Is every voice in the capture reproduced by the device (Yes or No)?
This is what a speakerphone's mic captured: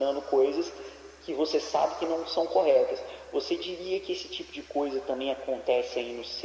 Yes